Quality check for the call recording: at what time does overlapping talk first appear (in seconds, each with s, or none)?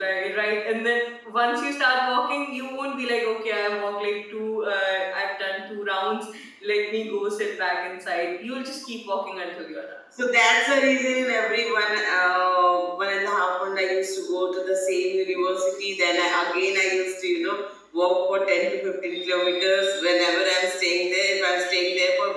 none